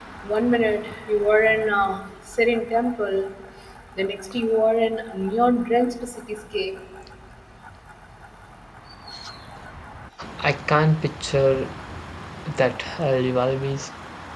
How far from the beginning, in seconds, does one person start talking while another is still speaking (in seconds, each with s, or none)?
none